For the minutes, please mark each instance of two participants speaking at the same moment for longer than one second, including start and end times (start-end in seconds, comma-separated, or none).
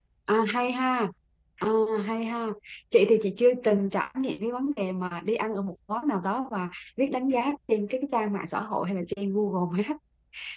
none